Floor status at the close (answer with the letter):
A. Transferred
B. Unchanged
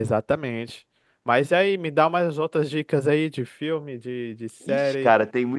A